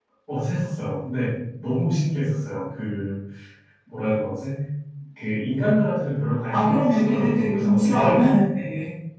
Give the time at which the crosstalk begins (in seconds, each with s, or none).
6.5 s